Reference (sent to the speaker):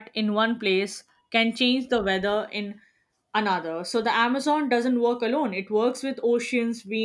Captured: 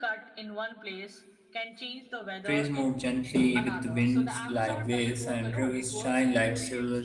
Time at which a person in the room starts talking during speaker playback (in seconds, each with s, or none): 2.4 s